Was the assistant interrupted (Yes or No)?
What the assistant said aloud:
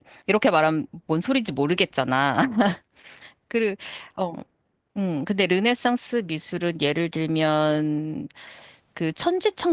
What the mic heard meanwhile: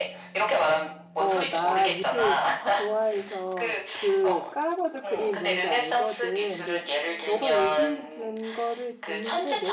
Yes